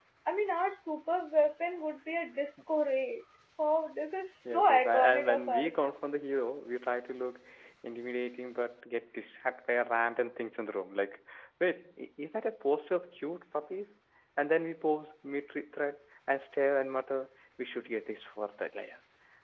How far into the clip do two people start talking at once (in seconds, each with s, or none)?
4.4 s